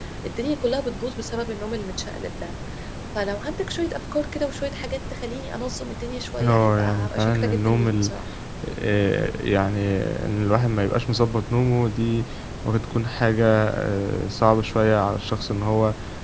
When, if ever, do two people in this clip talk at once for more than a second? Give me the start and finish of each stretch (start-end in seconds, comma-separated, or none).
6.4-8.1